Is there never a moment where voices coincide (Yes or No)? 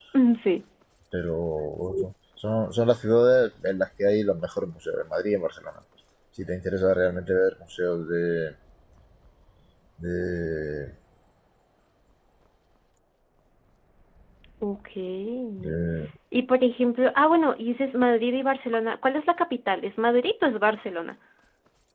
Yes